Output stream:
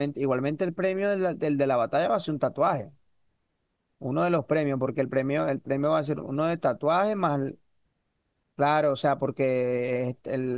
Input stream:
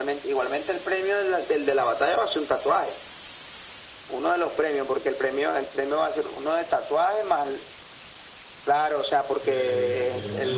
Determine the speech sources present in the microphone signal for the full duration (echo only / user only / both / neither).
both